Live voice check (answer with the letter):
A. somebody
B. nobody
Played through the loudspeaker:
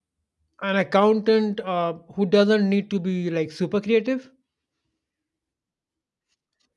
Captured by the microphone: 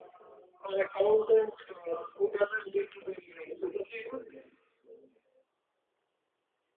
B